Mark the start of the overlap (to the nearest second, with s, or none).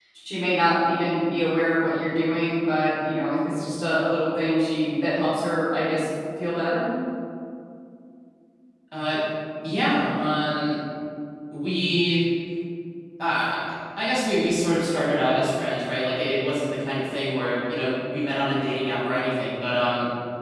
none